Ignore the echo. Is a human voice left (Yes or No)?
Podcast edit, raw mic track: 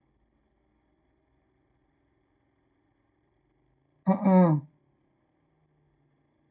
Yes